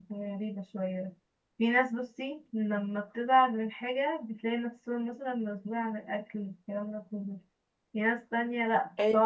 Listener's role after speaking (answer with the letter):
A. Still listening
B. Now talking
A